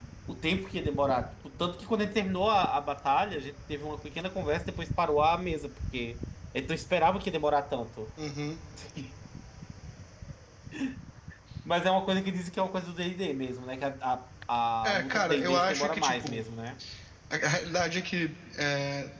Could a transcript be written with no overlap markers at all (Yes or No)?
No